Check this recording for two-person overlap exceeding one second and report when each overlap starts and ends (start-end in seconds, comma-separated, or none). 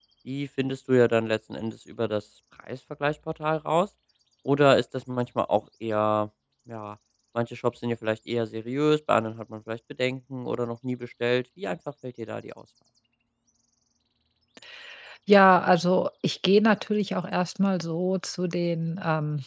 none